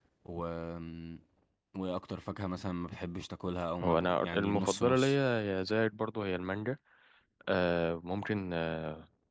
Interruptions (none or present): present